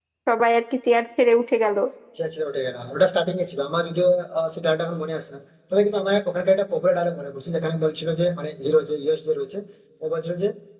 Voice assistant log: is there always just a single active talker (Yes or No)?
Yes